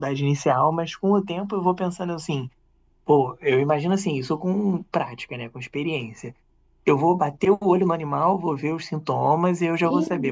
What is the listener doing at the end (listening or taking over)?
listening